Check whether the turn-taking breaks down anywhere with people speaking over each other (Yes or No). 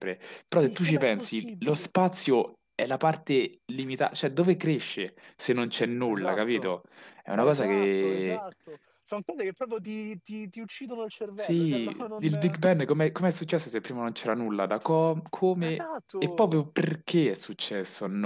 Yes